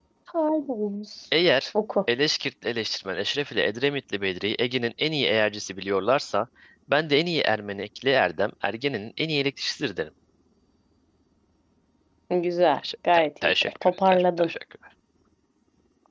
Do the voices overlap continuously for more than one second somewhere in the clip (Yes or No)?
Yes